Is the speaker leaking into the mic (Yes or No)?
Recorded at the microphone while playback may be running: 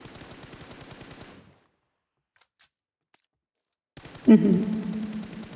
No